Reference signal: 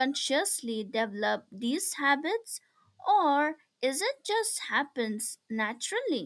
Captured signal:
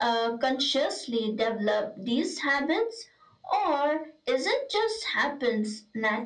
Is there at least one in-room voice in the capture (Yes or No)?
No